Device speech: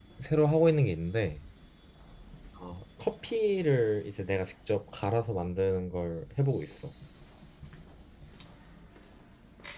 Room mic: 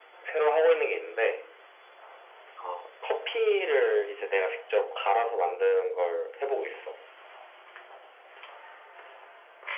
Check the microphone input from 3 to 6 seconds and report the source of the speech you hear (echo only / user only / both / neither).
echo only